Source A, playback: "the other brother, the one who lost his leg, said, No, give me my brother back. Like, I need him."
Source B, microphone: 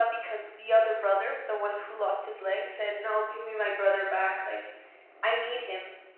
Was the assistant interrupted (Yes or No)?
No